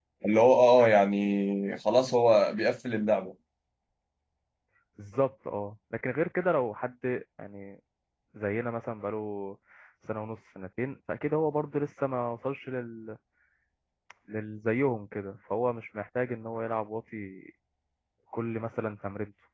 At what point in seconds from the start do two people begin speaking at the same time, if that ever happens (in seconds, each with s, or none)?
none